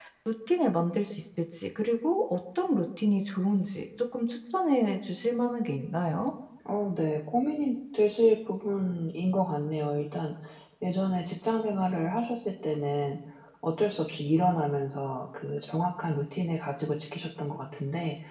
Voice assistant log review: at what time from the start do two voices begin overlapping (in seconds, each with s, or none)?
none